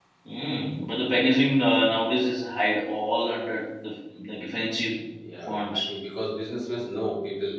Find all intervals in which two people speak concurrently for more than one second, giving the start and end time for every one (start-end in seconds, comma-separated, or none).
none